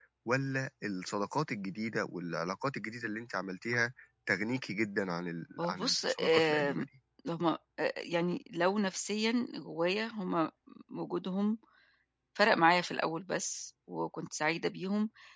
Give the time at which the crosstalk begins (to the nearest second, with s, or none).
6 s